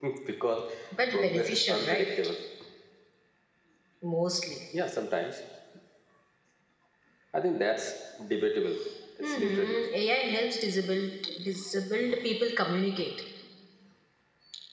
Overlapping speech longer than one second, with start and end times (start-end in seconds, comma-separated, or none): 1.1-2.4